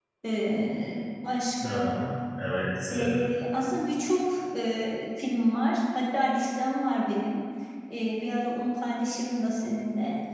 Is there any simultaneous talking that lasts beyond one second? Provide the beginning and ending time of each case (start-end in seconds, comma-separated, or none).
none